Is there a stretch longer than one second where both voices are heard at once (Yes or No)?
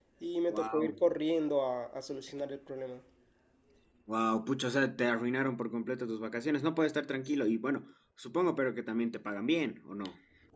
No